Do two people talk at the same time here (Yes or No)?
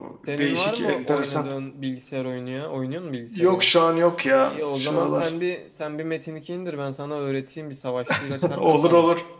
Yes